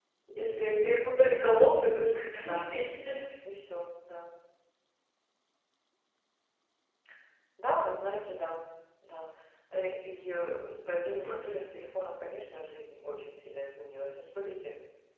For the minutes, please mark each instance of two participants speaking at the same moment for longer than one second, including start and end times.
none

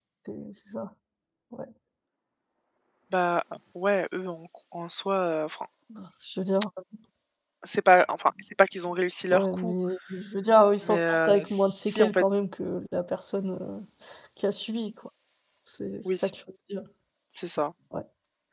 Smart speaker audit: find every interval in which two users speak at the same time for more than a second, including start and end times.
10.8-12.2

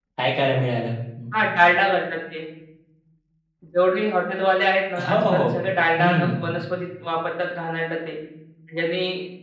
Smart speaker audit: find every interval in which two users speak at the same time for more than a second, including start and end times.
none

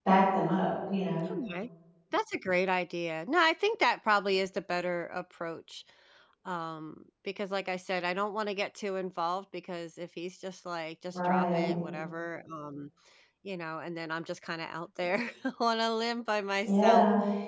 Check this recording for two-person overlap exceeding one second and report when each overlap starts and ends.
none

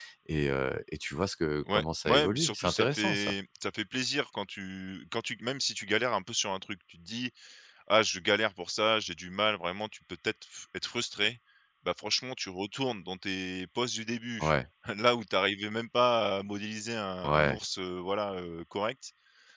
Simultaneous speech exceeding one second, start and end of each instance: 1.7-3.3

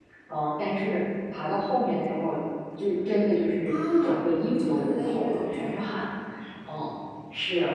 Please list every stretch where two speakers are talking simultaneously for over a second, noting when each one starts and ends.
4.6-6.0

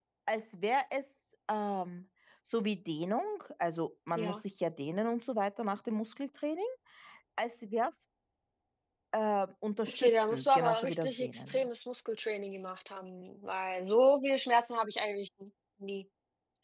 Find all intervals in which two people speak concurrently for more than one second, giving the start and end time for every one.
9.9-11.7

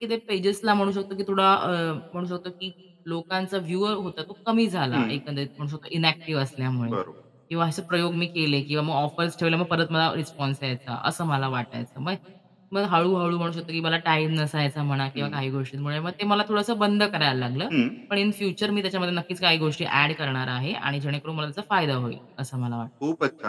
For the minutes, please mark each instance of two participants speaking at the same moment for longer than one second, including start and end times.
none

